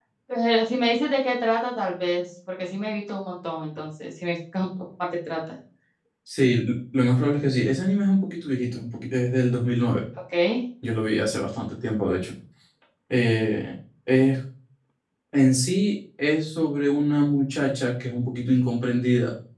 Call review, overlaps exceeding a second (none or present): none